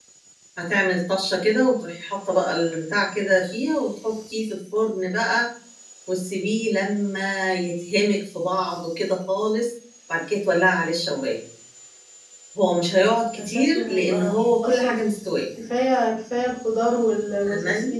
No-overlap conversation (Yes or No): No